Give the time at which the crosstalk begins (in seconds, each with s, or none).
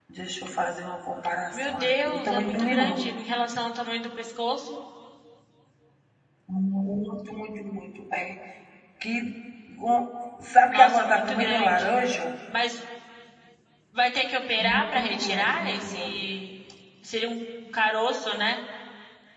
1.5 s